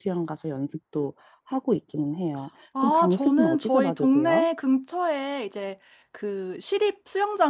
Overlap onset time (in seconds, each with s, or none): 2.8 s